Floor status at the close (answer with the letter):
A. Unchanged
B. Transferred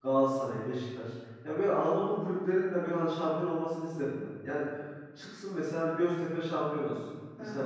A